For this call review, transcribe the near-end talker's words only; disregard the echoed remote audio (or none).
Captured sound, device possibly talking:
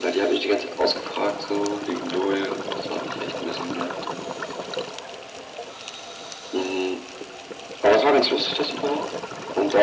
none